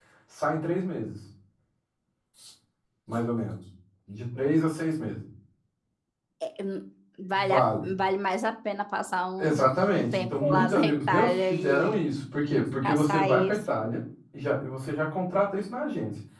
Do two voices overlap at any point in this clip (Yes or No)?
Yes